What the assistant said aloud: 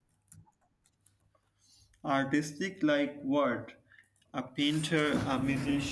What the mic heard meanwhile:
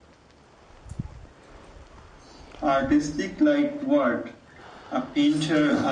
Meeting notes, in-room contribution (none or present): none